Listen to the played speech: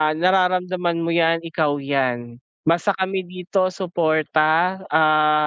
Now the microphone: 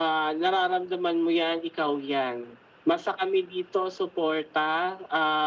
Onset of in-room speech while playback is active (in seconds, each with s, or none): none